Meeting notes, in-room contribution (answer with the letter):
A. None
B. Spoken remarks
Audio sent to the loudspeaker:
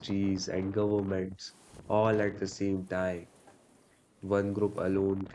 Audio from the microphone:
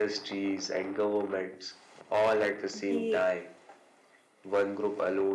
B